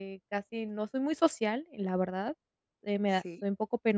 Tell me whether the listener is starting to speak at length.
No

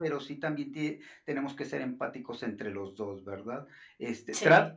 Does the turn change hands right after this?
No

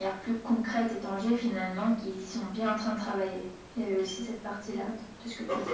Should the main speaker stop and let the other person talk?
Yes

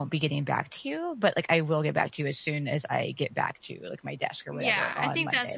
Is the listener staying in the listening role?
No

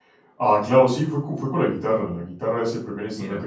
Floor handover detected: No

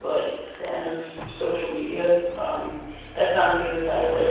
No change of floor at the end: Yes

